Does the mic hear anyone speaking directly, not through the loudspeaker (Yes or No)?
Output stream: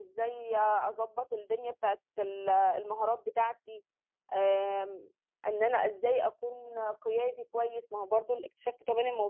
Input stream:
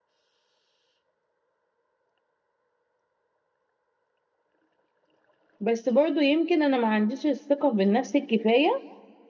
Yes